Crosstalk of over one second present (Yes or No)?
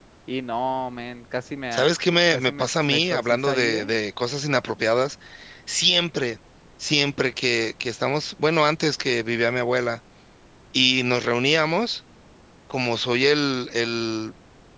Yes